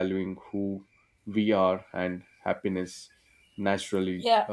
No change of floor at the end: No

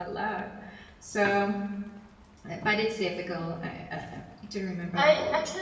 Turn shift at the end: Yes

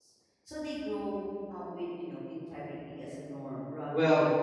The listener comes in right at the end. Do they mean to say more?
Yes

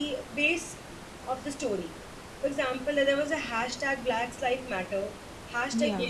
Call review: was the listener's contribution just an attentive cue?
Yes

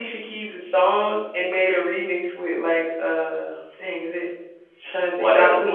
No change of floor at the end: No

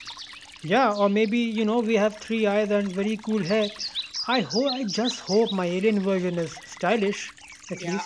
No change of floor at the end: No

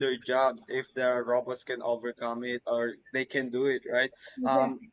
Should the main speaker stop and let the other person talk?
No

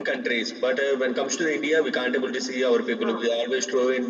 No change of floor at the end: Yes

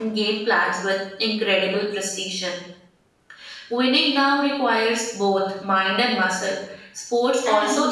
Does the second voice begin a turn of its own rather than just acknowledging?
No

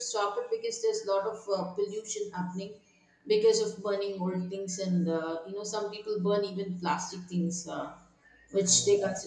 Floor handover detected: No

